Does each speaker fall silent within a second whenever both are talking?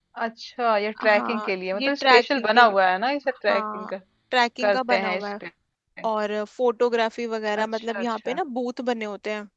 No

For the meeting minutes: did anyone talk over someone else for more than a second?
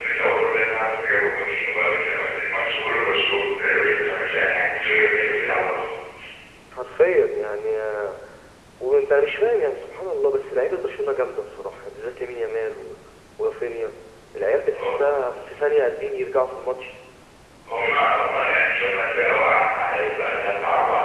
No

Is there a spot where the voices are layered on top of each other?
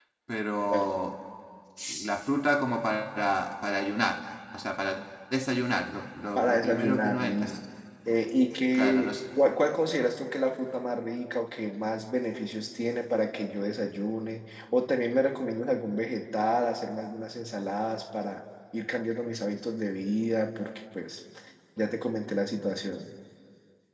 Yes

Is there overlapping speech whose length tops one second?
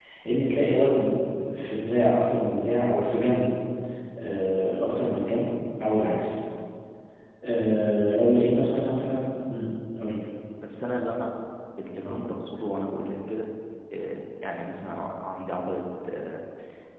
No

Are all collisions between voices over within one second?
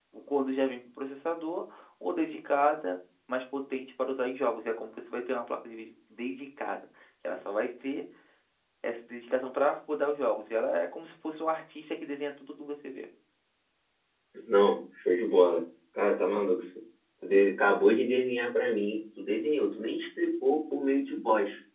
Yes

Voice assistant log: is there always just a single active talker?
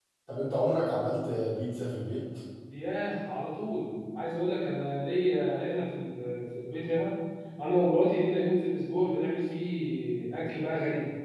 Yes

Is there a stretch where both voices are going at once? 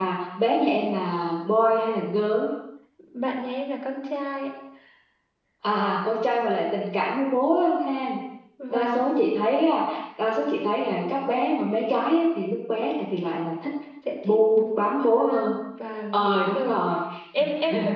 Yes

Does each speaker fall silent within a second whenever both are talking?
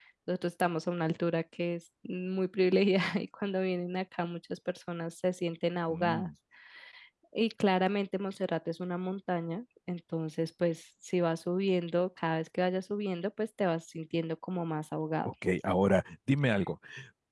Yes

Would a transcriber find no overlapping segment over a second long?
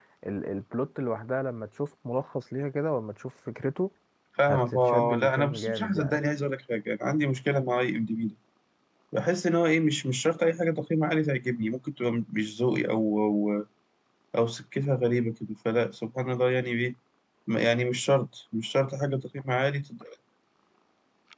No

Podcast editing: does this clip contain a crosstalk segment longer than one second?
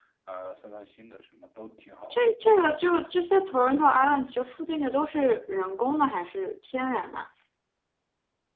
No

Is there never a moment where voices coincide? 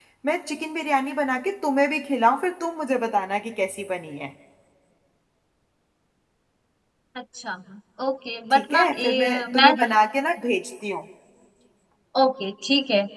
No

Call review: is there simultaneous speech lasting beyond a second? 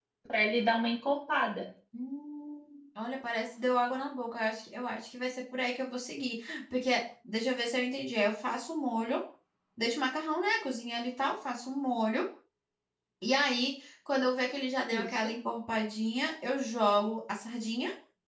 No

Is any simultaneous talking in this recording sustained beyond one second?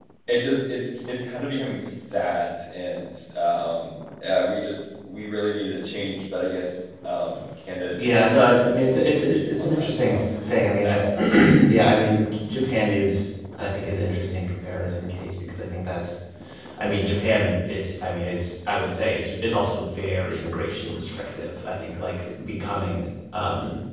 Yes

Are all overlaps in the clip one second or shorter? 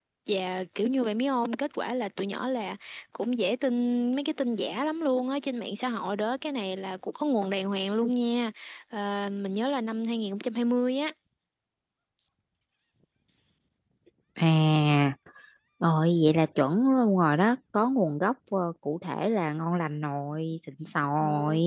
Yes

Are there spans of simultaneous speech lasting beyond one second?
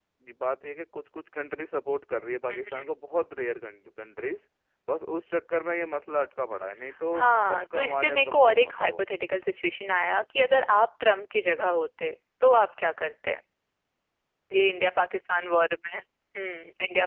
Yes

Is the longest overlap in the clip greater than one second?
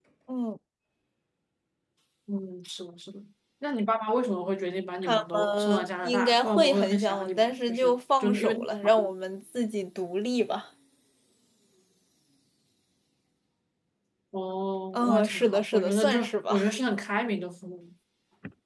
Yes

